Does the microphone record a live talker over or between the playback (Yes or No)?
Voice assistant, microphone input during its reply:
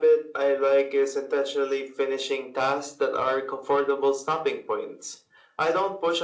No